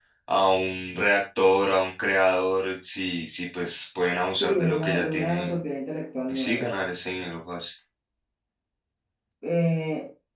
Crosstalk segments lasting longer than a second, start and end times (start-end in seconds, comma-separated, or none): 4.3-5.6